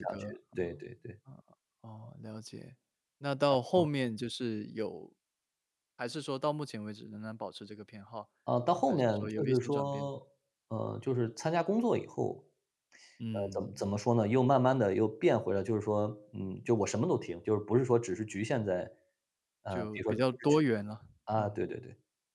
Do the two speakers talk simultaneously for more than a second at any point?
Yes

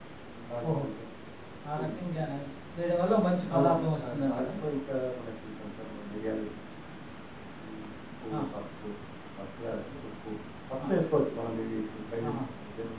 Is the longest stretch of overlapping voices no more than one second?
Yes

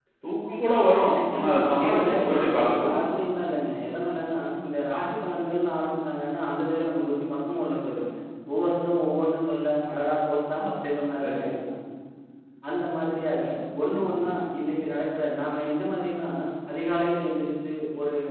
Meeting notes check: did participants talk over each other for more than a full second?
Yes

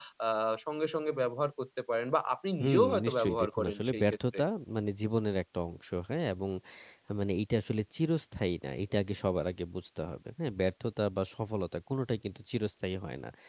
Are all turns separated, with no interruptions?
No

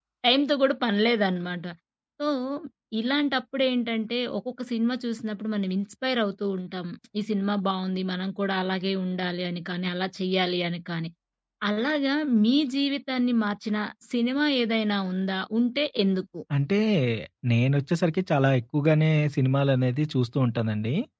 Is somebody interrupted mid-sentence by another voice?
No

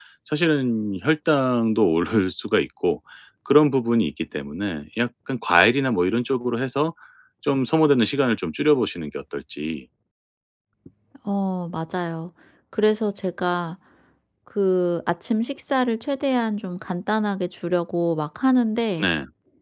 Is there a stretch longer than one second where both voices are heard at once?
No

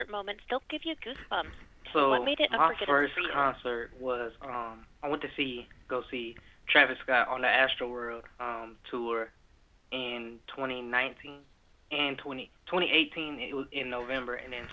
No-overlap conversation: No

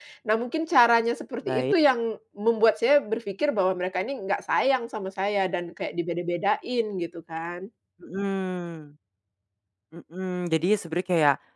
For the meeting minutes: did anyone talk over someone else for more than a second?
No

